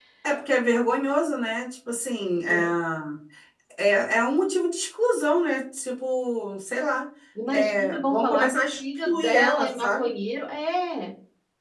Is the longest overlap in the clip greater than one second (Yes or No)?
Yes